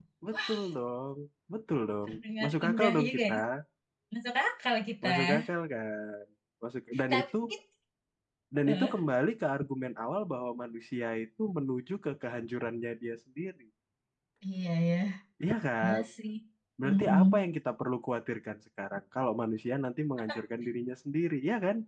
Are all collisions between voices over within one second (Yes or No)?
No